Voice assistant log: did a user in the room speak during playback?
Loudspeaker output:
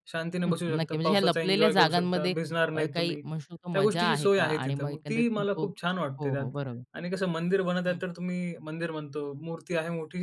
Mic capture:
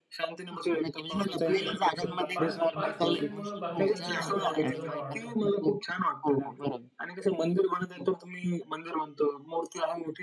Yes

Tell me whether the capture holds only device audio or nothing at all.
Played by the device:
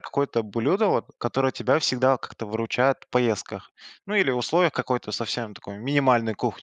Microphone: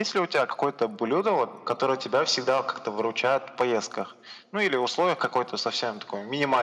Yes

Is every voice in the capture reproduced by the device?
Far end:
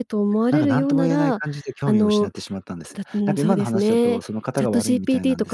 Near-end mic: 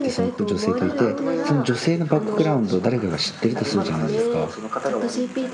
No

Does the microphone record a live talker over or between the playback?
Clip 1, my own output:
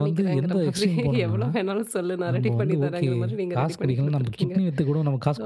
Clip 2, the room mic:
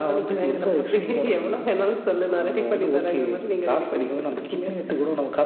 Yes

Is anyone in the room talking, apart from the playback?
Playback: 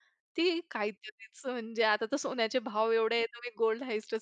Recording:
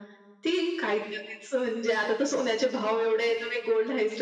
No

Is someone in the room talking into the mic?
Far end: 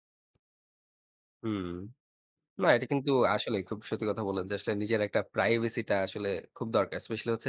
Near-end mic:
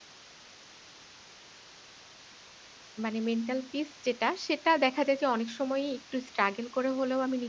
Yes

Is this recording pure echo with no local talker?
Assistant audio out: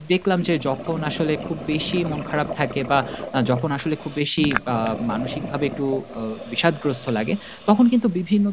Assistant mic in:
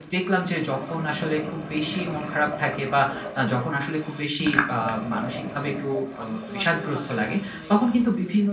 No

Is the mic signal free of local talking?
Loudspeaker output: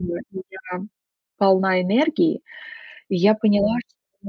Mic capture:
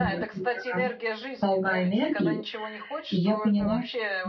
No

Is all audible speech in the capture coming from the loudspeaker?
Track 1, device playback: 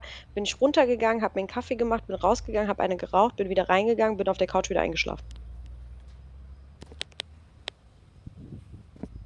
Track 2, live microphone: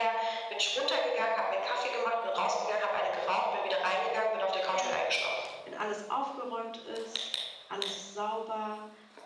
No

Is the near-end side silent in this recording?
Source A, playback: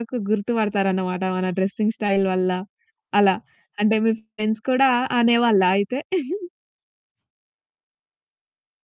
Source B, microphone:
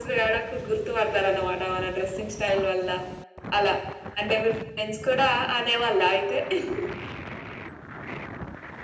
Yes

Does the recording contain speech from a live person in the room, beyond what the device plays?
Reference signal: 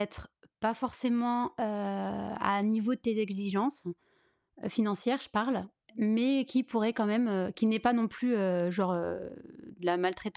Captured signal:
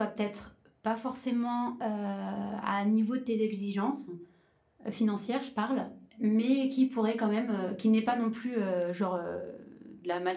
No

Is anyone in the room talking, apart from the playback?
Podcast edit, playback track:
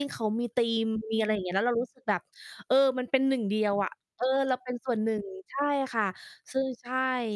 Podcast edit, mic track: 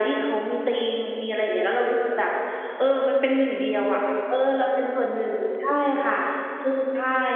No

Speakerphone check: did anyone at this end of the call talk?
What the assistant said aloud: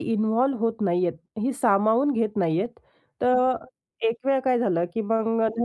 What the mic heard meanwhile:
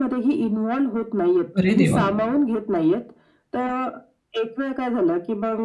Yes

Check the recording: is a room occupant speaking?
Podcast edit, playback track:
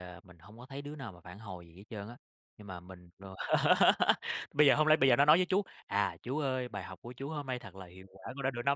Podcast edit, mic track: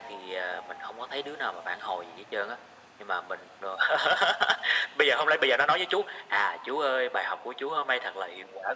No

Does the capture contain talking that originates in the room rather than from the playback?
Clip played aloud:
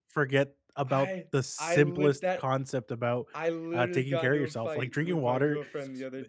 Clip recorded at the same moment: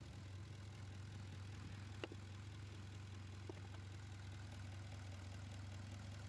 No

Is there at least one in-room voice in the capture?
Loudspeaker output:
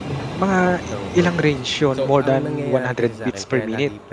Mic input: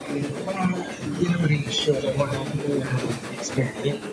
No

